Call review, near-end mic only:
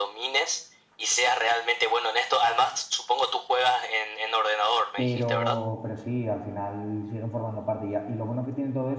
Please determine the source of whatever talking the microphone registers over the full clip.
both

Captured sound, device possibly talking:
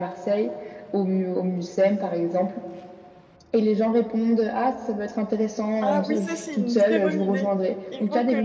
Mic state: both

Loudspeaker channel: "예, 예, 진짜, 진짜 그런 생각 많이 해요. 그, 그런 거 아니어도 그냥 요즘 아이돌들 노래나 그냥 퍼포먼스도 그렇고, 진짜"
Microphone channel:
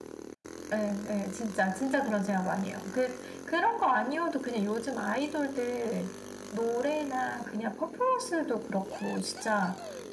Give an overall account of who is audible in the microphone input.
echo only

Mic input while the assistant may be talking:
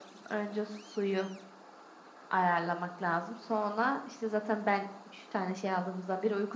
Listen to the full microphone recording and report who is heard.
echo only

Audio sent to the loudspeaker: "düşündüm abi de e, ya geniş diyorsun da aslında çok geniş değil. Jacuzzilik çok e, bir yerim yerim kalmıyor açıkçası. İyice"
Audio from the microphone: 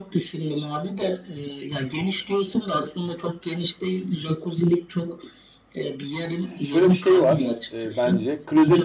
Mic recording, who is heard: both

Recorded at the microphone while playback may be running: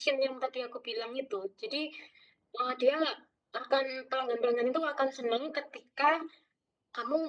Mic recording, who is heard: echo only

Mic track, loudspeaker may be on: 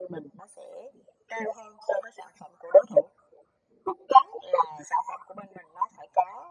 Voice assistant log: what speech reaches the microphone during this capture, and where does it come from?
echo only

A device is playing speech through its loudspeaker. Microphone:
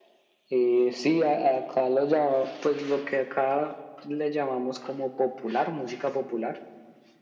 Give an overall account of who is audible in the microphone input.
echo only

